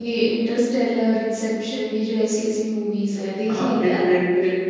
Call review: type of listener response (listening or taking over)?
taking over